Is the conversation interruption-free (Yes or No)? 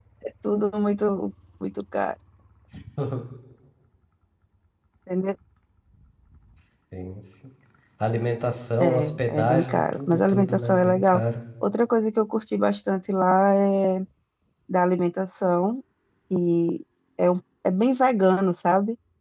No